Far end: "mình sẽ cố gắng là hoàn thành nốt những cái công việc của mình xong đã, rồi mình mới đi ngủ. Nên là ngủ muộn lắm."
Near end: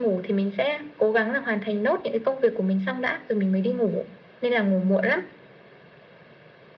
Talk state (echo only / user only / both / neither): echo only